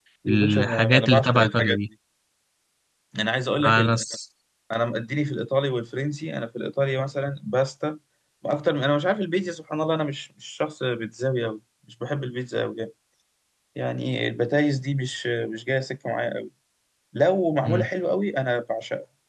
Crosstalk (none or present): present